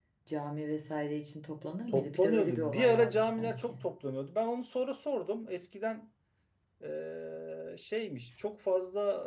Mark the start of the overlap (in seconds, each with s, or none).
1.9 s